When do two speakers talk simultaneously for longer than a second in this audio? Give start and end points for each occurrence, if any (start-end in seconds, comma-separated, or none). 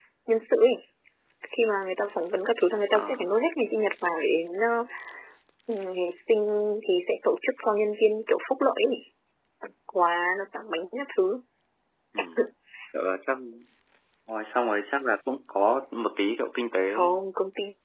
none